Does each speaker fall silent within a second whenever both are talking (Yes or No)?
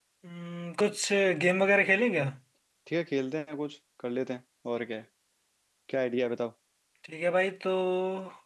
Yes